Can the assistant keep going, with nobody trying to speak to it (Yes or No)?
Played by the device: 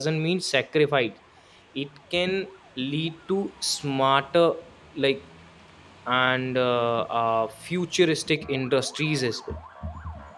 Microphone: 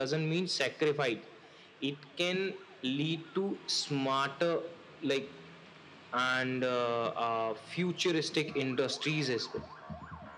Yes